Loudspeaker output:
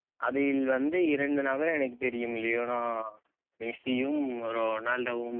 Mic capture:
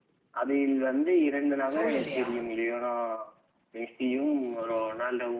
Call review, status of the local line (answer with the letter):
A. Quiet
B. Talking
B